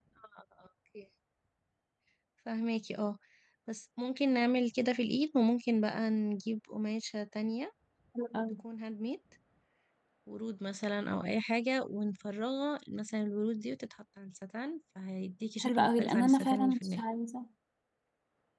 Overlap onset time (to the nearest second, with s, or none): 16 s